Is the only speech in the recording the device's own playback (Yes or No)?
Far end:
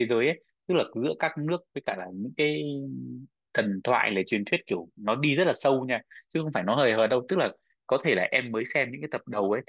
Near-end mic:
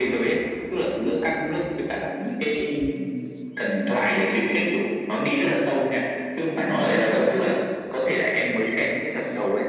No